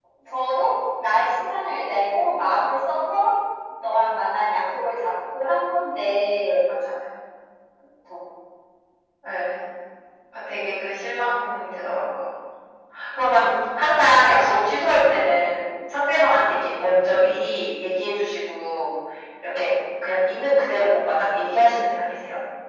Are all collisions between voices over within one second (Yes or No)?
Yes